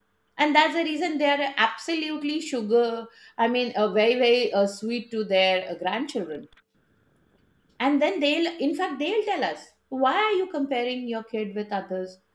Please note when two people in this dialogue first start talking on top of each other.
none

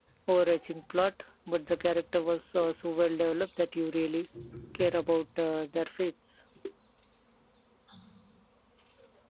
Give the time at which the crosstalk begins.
none

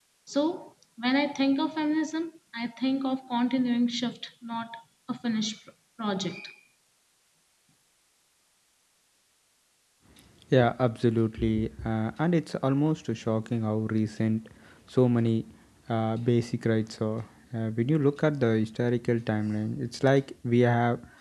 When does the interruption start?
none

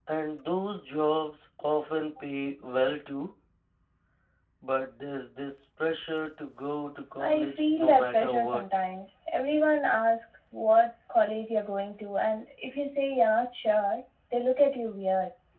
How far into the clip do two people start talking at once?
7.2 s

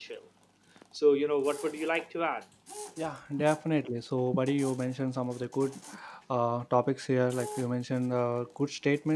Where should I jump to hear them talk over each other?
none

